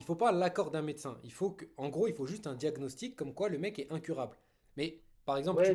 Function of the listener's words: taking over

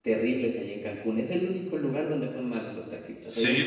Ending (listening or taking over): taking over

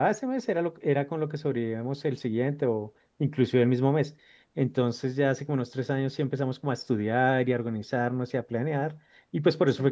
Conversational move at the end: listening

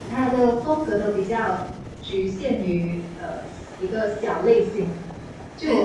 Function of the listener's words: listening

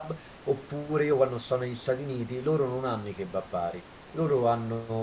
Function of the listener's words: listening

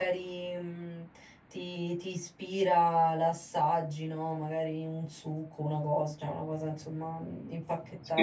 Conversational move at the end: taking over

